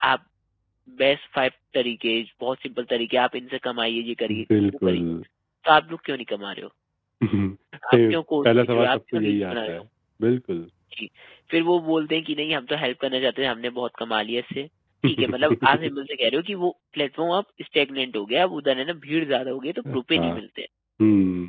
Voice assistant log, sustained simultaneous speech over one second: present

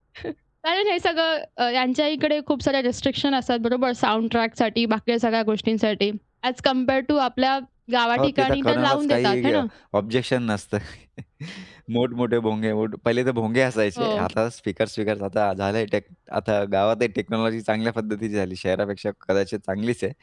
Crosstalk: present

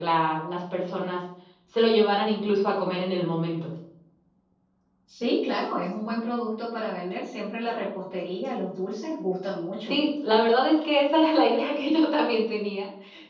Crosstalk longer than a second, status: none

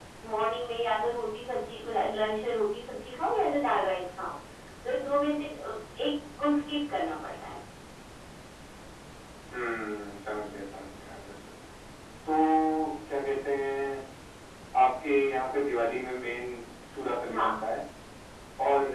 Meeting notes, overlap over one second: none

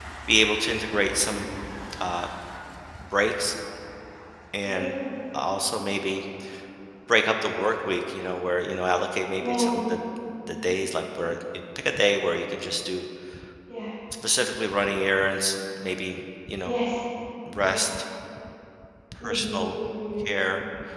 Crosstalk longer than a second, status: none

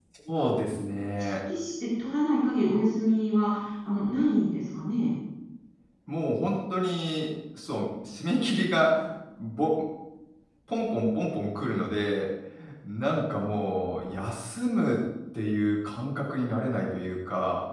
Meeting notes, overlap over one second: none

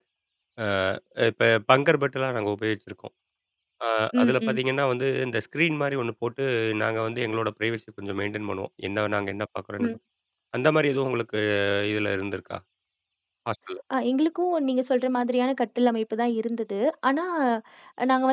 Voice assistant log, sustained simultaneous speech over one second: none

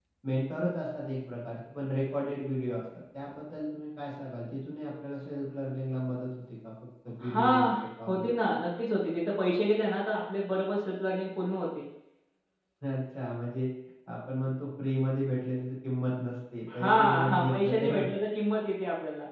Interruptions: present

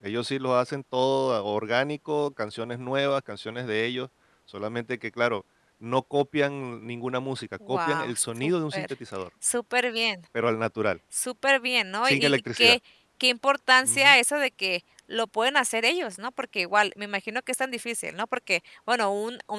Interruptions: present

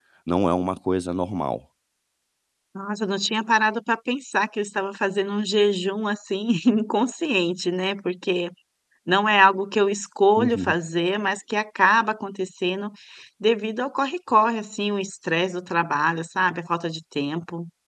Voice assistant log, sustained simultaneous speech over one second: none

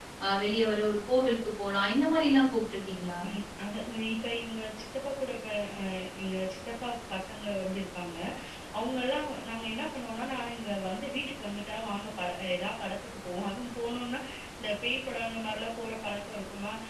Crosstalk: none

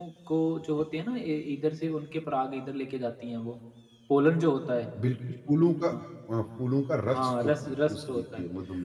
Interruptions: present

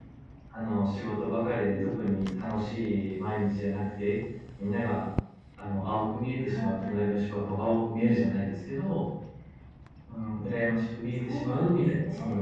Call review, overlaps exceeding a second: present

